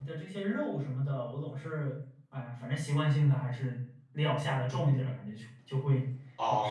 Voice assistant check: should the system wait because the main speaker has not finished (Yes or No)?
No